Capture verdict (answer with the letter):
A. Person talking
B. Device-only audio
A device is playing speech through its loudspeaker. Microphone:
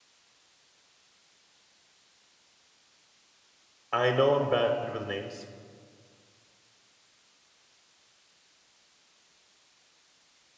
A